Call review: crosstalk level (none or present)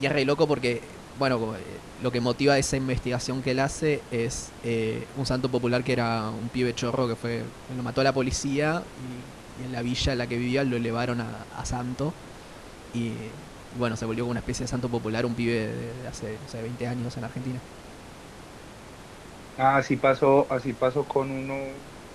none